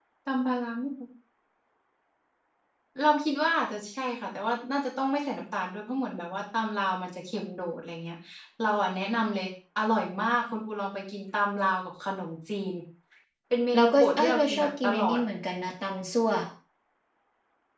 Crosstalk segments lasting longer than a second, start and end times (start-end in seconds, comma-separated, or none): 13.7-15.2